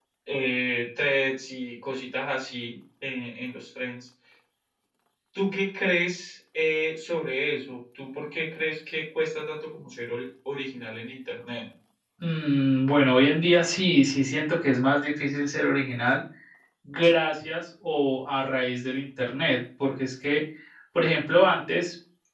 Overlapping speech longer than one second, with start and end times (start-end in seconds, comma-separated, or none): none